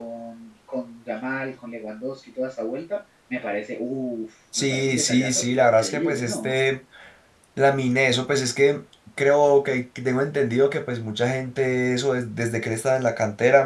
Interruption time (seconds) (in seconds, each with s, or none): 4.5 s